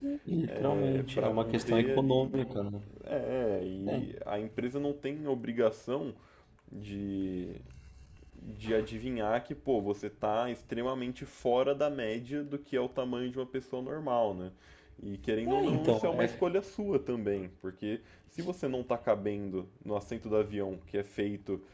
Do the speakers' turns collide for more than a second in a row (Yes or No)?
Yes